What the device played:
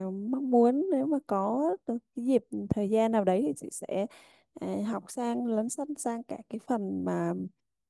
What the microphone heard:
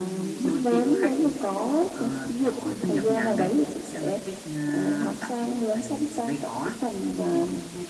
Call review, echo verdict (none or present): present